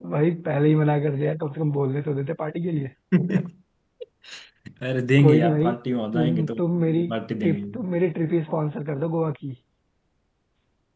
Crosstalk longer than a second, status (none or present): none